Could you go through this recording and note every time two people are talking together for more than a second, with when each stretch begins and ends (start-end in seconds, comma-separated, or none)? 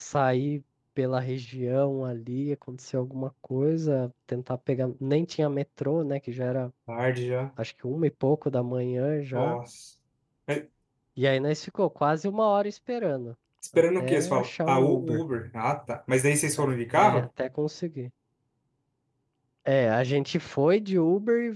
13.8-15.2